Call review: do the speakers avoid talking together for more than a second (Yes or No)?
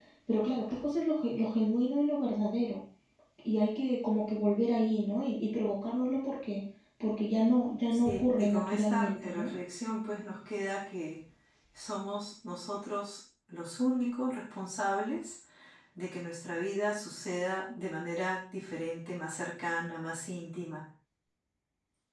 No